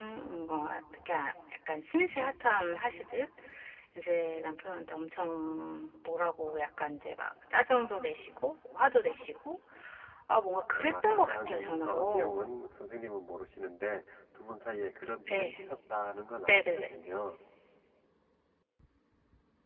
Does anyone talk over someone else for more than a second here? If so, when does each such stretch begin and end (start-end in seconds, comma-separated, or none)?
10.7-12.4